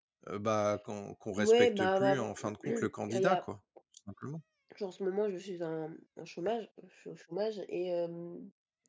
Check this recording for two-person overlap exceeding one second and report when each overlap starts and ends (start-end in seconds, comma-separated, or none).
1.4-3.4